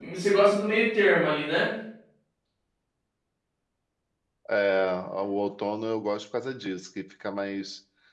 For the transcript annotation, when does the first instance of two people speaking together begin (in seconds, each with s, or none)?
none